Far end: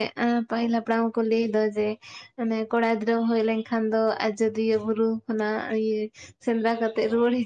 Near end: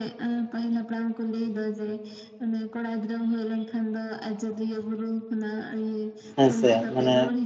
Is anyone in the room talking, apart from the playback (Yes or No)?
Yes